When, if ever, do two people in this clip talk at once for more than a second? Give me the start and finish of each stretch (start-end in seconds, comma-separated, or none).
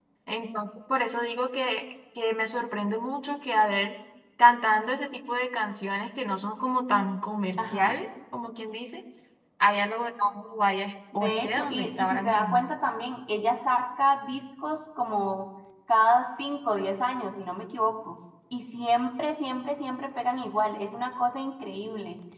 11.2-12.6